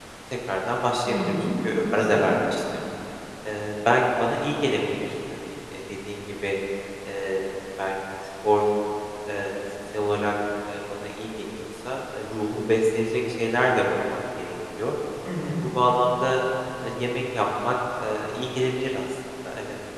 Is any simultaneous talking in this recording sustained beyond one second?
Yes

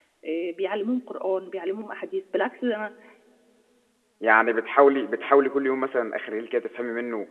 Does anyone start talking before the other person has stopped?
No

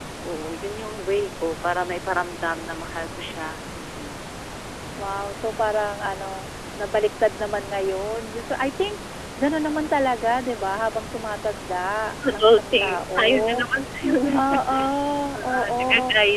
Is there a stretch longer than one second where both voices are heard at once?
Yes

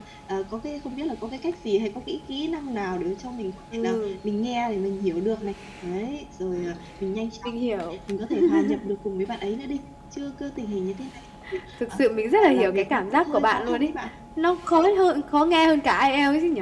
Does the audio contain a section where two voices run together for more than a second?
Yes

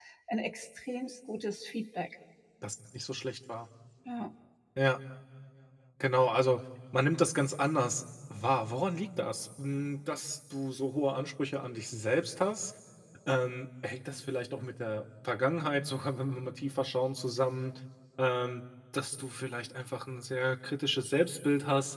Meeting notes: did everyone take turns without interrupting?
Yes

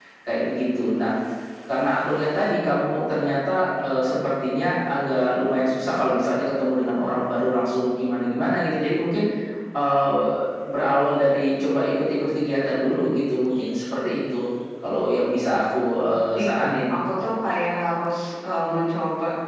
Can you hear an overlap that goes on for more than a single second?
No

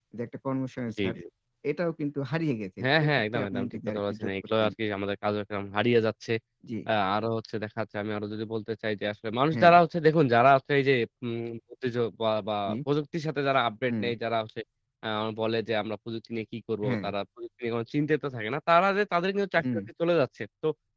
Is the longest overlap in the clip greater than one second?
Yes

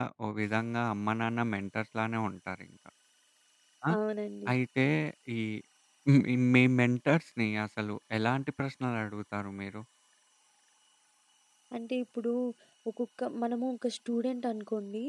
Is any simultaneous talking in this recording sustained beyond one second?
No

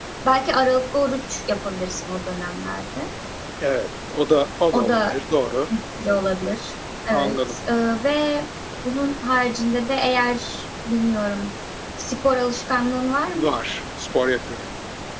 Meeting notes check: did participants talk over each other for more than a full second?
No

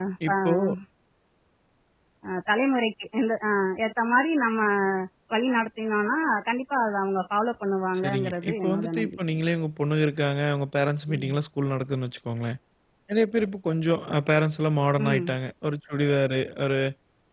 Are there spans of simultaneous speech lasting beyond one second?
Yes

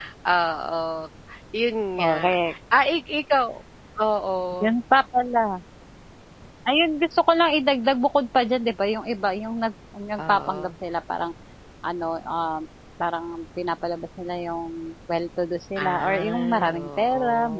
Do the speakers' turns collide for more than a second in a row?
Yes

